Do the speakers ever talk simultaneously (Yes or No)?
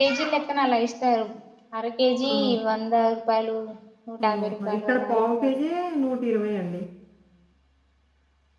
Yes